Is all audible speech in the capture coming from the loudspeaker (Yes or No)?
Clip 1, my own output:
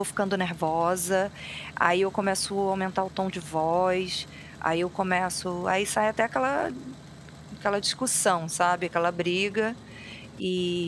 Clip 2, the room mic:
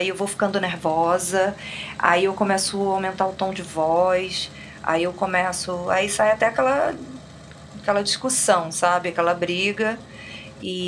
Yes